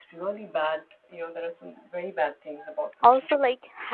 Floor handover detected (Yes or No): Yes